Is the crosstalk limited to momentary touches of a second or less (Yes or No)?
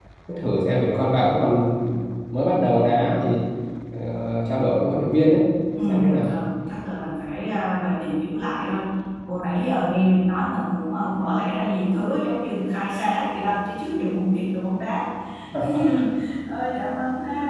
Yes